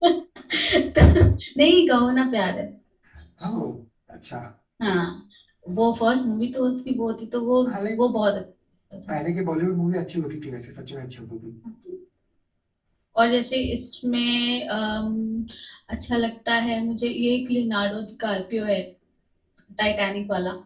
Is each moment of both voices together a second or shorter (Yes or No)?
Yes